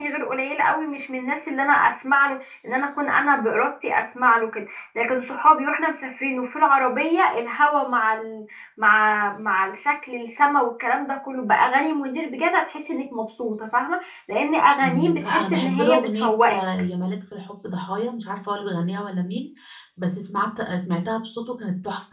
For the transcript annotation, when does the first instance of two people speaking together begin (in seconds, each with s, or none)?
14.8 s